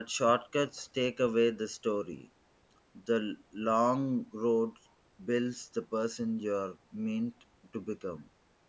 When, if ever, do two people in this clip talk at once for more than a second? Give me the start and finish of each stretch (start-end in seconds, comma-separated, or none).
none